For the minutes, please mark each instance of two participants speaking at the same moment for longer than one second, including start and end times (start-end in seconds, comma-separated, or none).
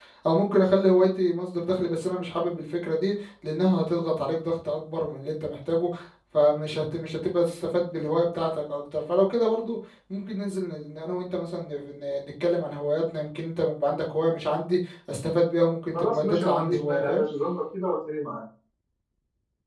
15.9-17.2